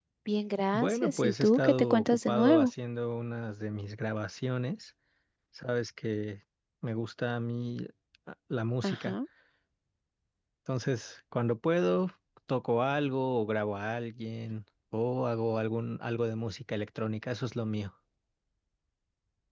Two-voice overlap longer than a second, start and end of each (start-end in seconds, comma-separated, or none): 0.7-2.7